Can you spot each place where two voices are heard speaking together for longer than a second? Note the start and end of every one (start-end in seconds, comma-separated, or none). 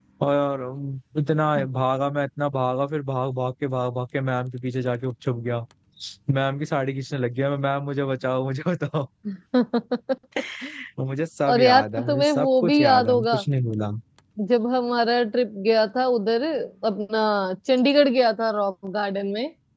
11.5-13.4